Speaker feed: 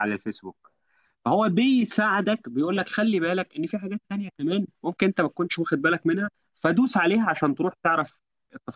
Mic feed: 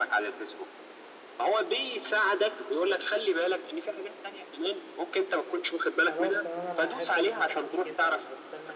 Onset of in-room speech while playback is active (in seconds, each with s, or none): 6.0 s